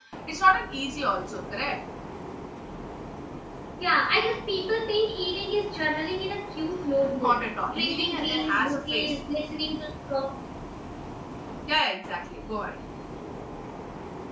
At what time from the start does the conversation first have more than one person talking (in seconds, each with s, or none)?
7.1 s